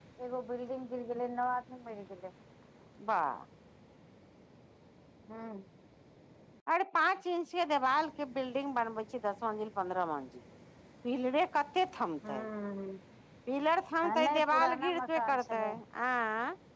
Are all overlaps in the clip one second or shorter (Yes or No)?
No